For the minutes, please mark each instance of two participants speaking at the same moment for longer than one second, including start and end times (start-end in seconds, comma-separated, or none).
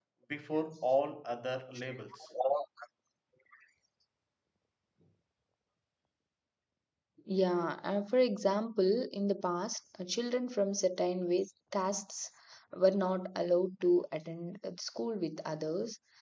none